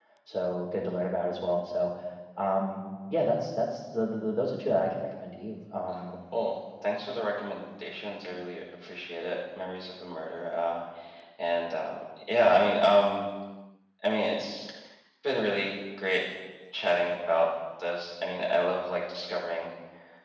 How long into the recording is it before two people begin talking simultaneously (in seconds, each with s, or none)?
none